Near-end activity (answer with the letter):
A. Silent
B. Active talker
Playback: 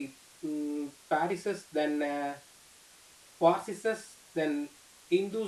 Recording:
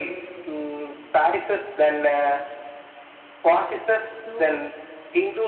B